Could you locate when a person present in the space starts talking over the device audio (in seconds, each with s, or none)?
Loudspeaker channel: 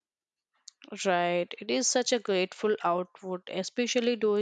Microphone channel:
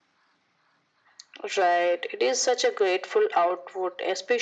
none